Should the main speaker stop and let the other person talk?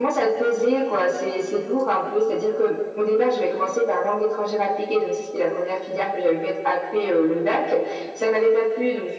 No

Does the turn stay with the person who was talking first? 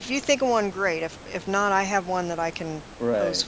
No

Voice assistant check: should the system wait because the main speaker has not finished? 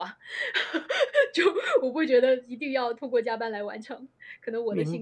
No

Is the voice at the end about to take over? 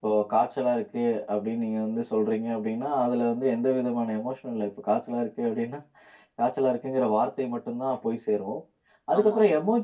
No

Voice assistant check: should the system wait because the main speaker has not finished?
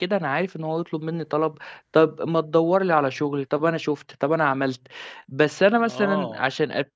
No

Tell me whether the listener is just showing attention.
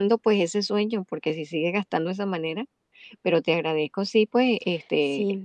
No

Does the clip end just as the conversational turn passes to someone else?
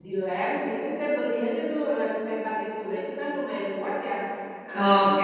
No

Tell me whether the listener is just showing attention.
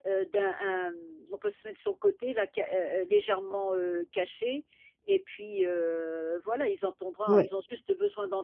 Yes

